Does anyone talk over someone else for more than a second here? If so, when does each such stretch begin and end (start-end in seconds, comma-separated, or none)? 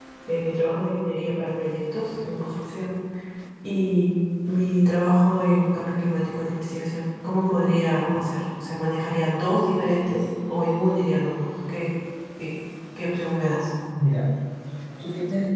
none